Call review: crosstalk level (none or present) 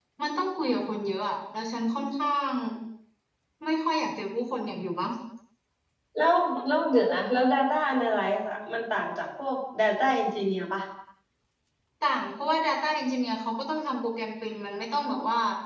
none